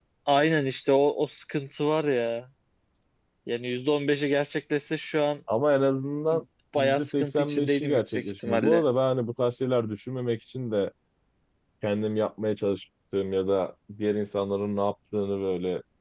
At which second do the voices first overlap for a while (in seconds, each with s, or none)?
6.8 s